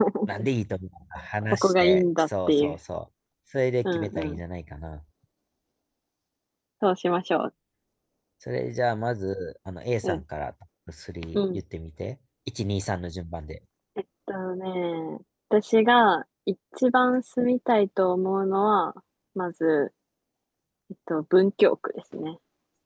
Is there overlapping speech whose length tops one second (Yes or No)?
Yes